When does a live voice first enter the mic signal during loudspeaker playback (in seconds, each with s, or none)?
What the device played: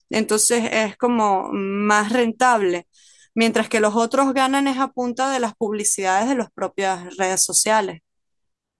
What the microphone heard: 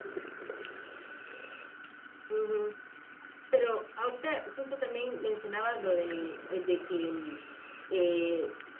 2.3 s